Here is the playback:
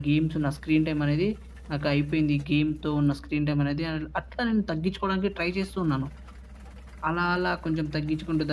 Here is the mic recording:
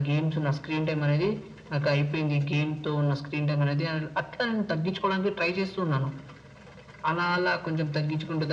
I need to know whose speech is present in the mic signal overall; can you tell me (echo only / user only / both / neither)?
echo only